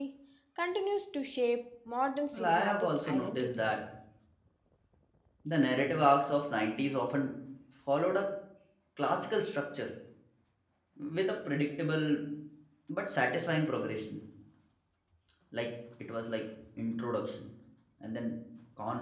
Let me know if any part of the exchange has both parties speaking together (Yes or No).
Yes